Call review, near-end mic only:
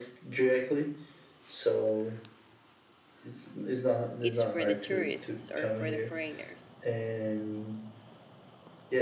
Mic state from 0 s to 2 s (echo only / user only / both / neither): echo only